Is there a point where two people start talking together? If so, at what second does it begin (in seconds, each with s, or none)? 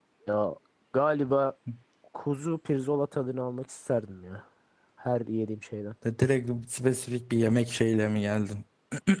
none